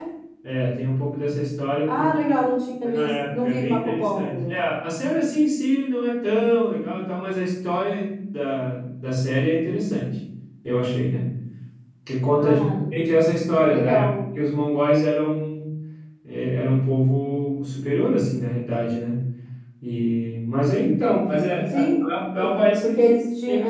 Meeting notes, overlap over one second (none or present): present